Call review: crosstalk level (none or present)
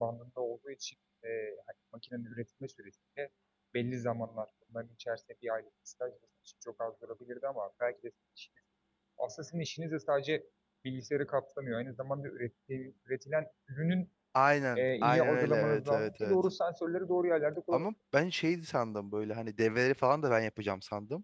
present